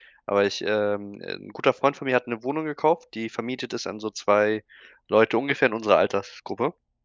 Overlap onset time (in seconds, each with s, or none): none